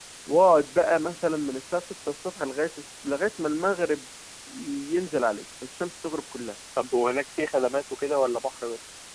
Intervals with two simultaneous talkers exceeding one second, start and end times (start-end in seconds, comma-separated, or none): none